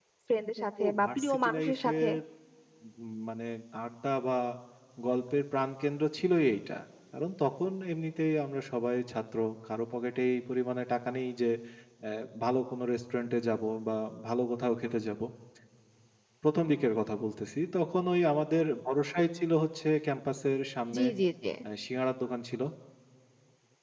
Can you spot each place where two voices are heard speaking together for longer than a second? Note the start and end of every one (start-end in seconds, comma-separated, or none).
0.8-2.1